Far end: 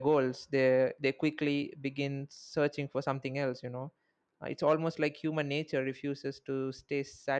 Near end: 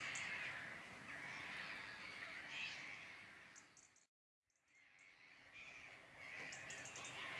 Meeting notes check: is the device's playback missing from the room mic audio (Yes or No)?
Yes